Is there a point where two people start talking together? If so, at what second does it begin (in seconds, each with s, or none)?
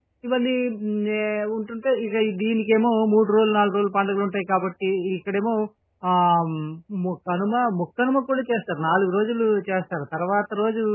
none